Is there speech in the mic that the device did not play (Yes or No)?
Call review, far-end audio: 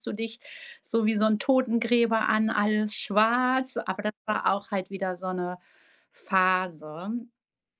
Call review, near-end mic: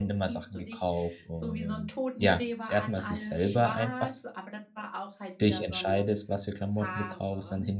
Yes